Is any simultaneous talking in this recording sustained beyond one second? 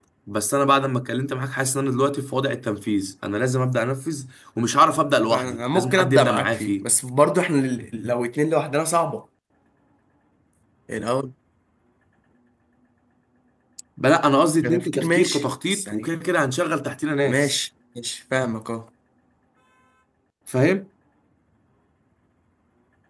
Yes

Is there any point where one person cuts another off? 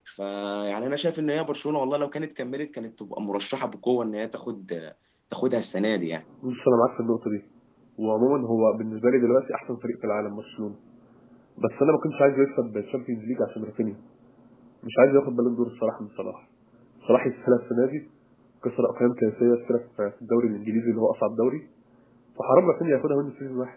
No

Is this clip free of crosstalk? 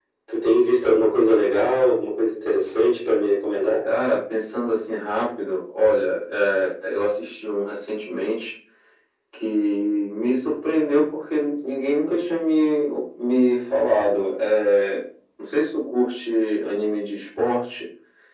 Yes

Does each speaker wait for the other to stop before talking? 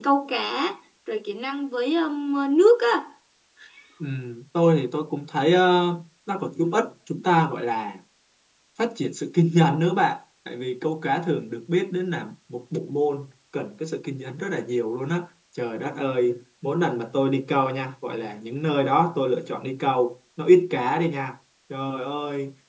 Yes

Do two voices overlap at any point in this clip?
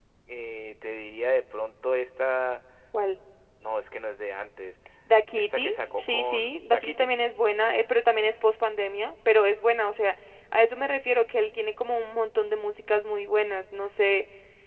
Yes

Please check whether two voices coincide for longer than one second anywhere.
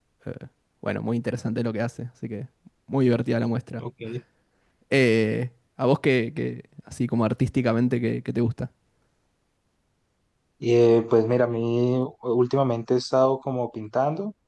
No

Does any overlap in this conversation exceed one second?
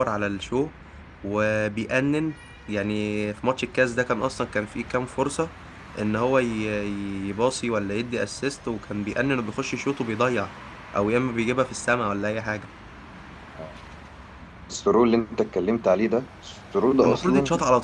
No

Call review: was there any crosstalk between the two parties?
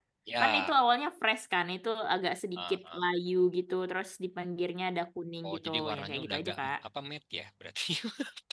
Yes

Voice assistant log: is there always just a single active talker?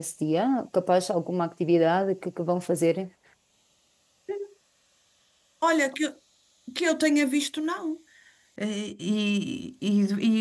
Yes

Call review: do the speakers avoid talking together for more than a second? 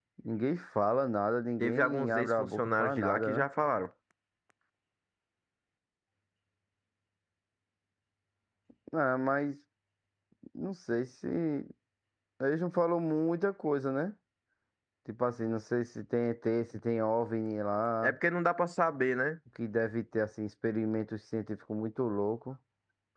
No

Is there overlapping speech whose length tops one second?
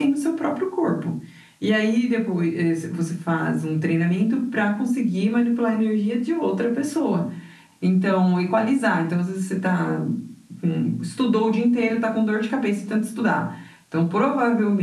No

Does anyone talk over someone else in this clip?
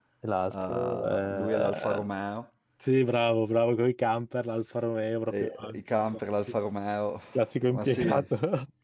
Yes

